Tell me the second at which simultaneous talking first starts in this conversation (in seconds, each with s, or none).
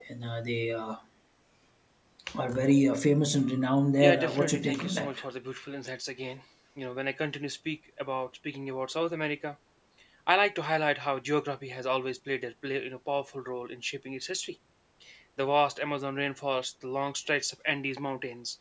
4.0 s